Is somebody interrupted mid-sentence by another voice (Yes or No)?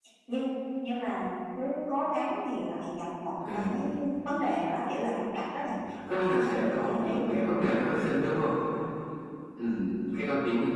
Yes